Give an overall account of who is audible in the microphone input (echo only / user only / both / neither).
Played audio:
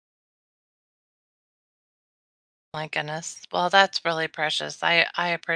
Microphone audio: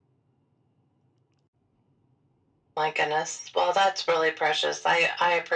echo only